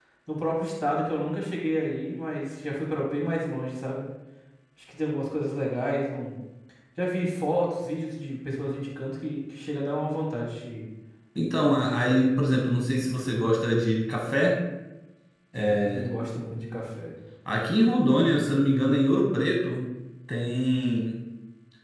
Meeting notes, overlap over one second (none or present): none